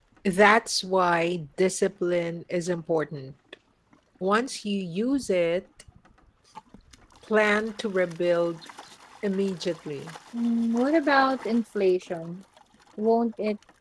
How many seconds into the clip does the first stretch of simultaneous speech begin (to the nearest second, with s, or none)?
none